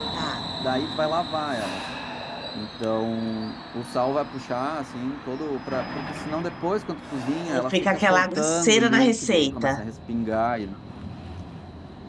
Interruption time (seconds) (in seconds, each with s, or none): 7.5 s